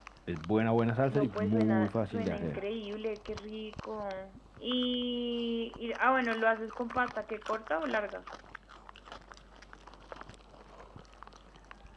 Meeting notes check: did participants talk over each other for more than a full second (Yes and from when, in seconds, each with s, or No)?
Yes, from 1.1 s